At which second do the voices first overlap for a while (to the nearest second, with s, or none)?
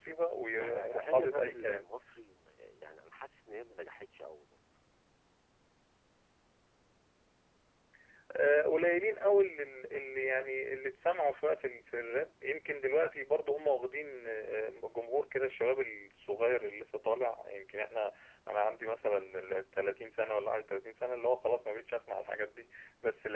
1 s